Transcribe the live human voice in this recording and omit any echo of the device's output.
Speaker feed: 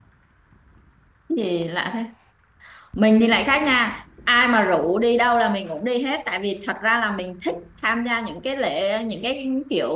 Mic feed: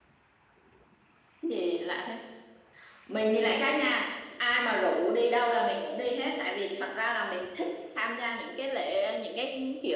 none

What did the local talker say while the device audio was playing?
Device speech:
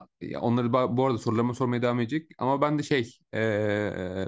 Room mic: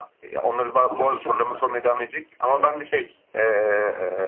Ama bir şartla. e,

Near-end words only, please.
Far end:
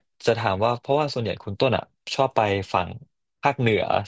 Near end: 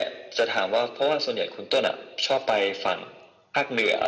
none

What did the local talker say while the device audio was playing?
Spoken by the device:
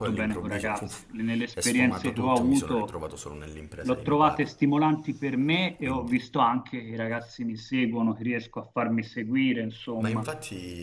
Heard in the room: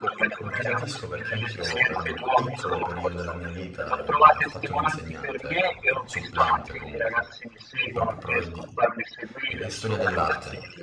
No, ti capisco perché anch'io per un piccolo periodo della mia vita mh, ho fatto l'insegnante, ecco, supplente comunque, proprio pro- di eh, storia dell'arte,

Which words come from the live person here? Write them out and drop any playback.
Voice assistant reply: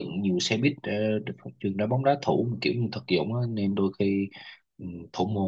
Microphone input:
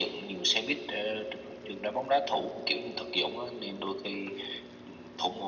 none

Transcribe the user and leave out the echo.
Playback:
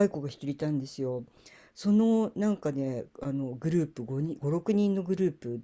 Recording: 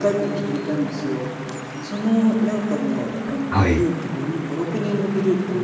はい、

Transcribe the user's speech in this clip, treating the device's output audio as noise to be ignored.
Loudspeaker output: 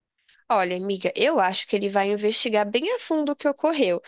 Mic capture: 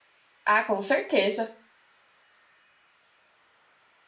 Ah, com certeza.

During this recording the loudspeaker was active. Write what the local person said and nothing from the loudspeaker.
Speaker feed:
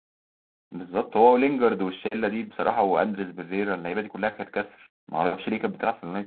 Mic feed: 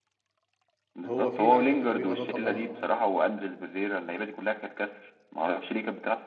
هو في لعيبه كده بيبقى ده طبعهم

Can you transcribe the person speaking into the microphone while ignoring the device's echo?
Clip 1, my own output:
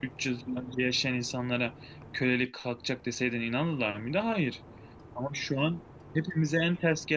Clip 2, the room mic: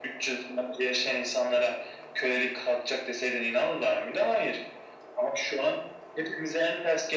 none

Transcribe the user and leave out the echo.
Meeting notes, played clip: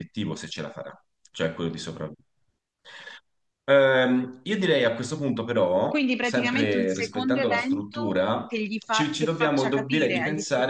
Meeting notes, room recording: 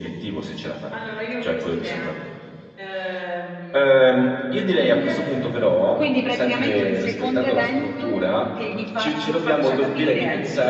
Allora io ho questa idea. Ehm, bunker,

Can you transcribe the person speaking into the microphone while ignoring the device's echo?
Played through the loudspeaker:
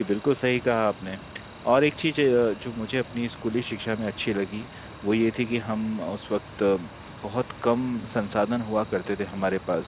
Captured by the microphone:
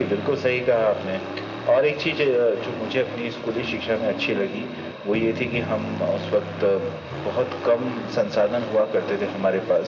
none

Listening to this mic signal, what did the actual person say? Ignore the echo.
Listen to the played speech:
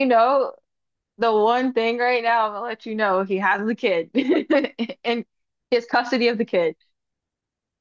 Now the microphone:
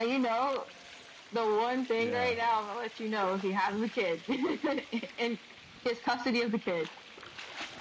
Yeah,

